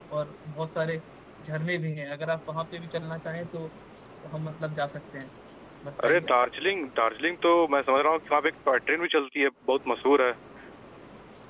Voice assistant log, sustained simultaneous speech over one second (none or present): none